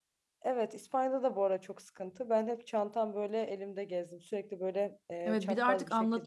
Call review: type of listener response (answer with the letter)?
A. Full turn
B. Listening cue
A